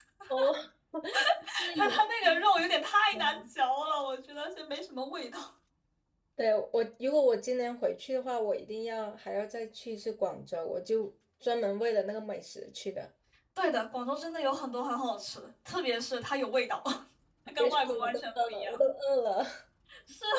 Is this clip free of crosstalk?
No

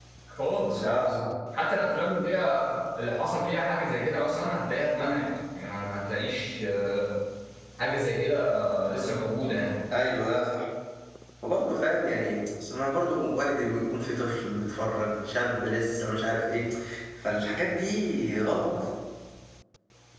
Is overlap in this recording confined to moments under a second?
Yes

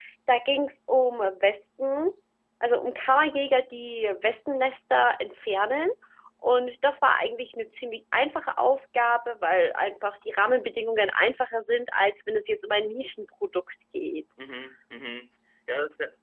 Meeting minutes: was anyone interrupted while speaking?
No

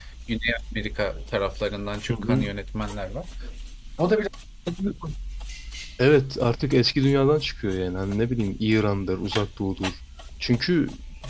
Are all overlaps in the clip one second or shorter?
Yes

